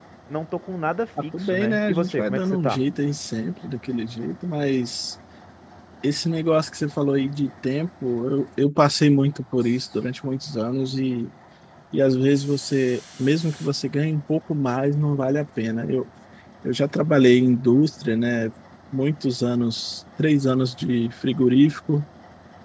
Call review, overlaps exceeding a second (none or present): present